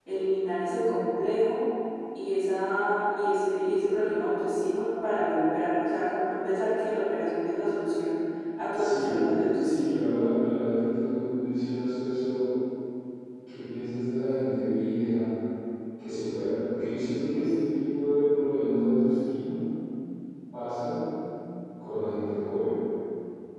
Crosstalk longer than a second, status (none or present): none